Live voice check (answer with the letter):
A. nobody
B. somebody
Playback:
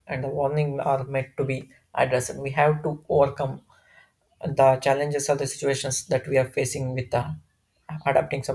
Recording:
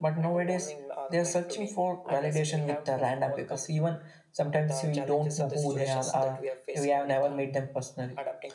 B